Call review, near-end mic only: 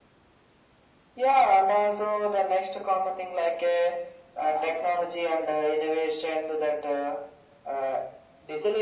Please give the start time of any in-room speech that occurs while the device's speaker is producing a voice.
none

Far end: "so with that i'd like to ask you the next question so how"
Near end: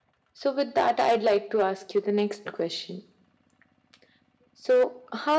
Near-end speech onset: none

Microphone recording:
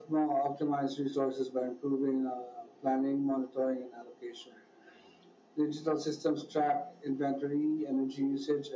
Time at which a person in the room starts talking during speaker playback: none

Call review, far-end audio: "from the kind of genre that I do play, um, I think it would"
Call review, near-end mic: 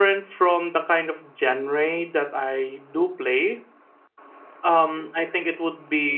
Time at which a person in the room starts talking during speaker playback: none

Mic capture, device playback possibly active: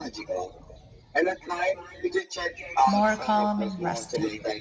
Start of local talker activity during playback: 2.9 s

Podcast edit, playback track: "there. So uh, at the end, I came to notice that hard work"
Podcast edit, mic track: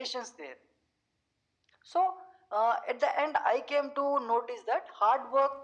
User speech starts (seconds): none

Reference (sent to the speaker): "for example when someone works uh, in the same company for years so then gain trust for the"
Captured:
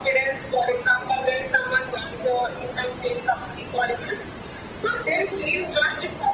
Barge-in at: none

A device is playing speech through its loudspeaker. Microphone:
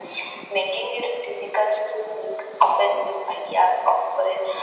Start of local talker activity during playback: none

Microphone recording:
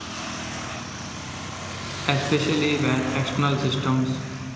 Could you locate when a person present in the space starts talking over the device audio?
2.0 s

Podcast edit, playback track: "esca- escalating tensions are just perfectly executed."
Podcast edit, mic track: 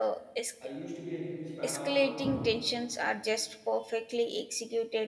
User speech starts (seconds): 0.6 s

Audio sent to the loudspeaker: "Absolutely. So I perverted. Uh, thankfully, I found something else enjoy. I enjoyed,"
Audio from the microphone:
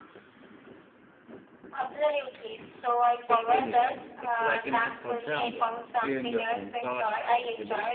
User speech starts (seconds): 3.3 s

